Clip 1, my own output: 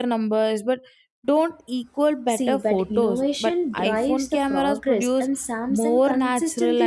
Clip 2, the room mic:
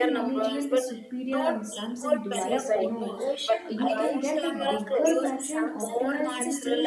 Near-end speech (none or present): present